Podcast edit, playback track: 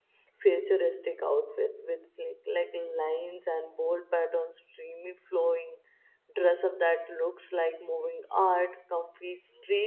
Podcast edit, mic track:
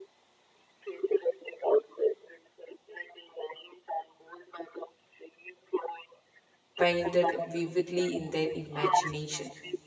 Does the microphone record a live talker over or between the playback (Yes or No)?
Yes